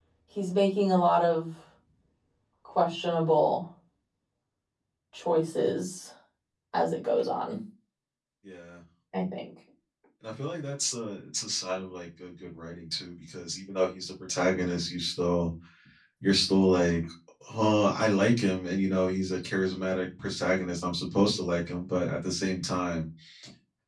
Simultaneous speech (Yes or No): No